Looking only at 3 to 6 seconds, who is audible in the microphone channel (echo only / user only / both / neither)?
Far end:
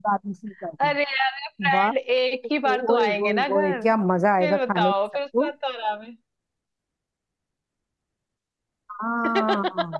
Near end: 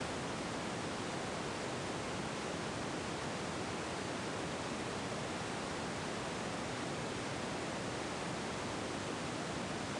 neither